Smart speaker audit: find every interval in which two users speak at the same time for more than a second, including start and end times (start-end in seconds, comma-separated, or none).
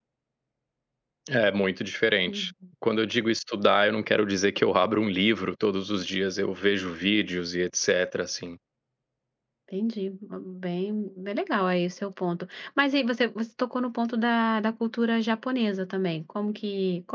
none